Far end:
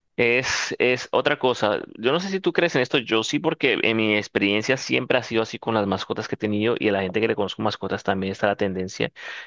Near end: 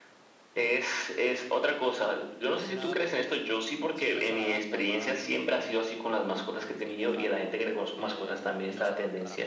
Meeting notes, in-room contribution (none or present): present